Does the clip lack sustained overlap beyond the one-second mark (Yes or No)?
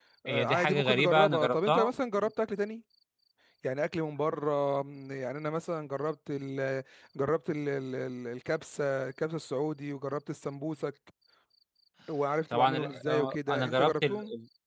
No